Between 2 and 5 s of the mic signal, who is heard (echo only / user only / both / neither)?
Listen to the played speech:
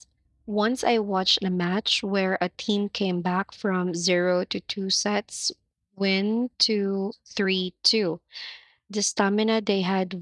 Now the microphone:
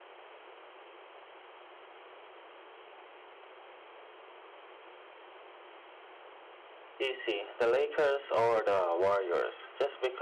neither